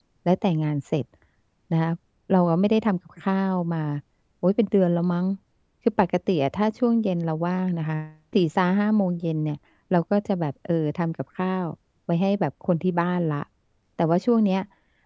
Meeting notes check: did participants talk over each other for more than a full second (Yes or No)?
No